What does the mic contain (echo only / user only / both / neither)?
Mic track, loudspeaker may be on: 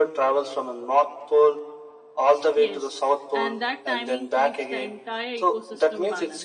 both